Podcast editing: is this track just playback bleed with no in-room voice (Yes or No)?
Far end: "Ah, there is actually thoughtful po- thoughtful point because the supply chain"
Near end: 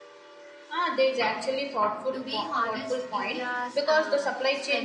No